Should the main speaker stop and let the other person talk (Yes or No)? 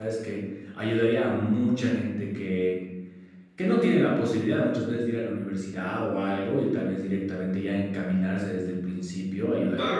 Yes